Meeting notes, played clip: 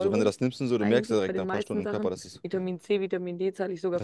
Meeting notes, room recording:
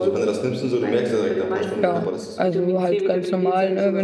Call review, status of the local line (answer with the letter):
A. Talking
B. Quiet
A